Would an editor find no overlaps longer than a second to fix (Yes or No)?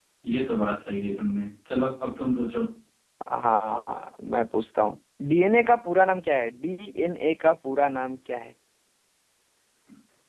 Yes